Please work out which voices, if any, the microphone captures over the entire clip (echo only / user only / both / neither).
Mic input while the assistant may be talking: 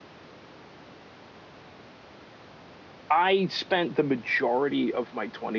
user only